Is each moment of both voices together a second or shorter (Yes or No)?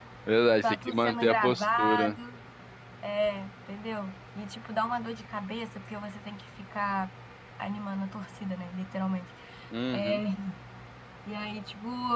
No